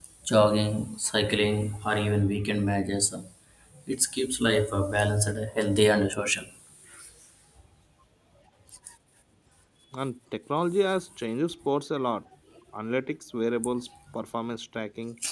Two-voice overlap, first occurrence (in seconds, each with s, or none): none